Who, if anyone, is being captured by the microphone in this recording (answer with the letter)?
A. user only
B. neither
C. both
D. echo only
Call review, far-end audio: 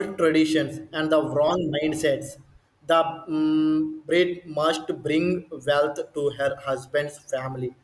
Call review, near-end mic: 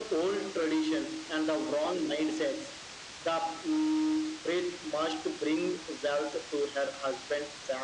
D